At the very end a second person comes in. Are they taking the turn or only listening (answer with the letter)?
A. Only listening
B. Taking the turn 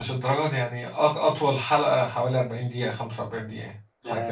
B